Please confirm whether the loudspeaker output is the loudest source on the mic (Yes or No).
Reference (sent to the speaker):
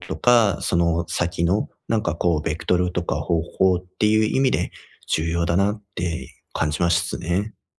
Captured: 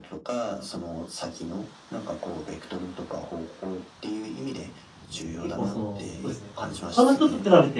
No